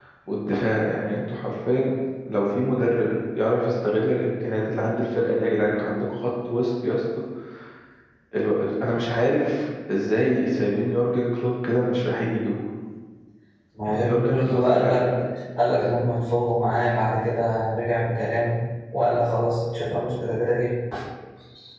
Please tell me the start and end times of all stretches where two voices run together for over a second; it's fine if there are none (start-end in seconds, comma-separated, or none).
13.8-15.1